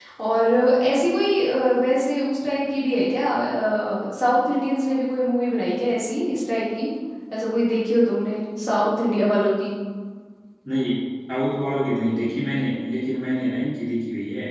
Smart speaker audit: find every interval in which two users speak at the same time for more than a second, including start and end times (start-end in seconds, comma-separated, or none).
none